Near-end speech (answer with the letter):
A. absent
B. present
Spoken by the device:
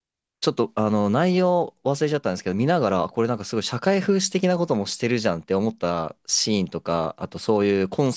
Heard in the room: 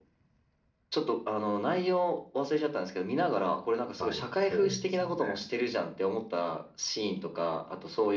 B